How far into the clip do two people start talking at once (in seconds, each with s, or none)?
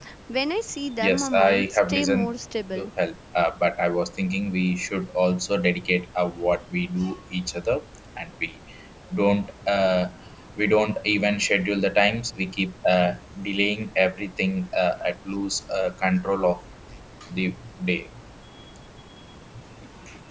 1.0 s